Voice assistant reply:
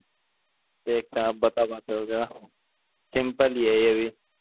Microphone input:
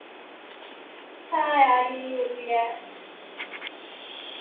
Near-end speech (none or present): present